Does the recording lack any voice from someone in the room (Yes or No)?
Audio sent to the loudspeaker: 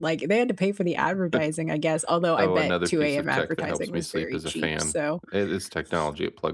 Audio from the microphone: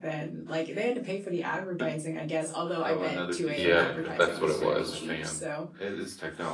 No